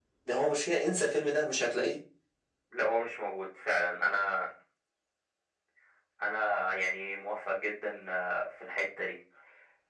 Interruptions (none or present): none